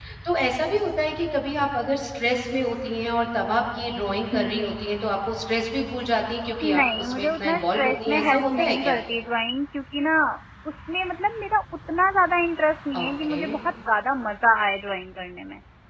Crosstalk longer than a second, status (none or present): present